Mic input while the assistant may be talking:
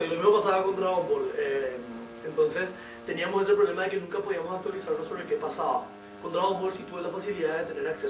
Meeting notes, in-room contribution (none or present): none